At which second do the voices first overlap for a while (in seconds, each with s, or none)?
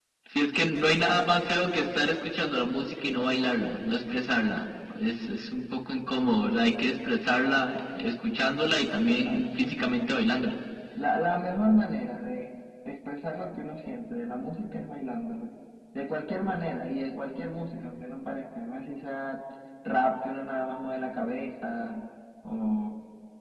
9.0 s